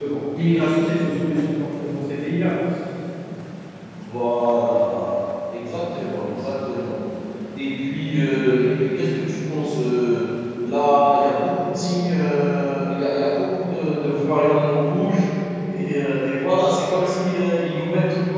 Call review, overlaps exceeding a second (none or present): none